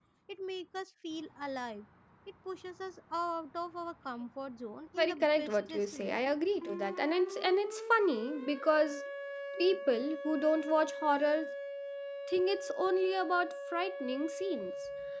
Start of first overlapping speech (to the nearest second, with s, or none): 5 s